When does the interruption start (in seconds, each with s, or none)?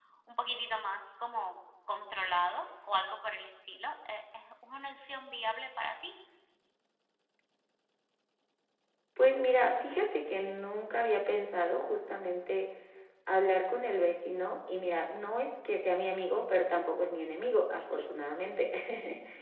none